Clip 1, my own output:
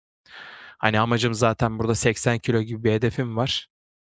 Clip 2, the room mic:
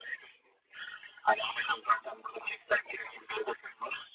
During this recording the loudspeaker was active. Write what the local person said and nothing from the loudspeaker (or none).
none